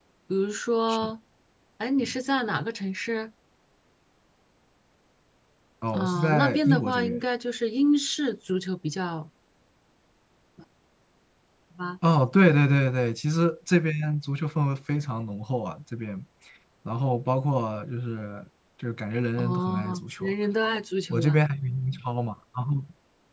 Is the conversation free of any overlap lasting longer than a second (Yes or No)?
No